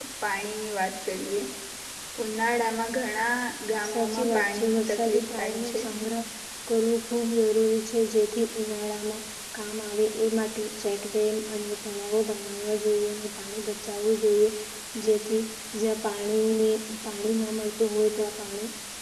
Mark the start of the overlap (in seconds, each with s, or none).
3.9 s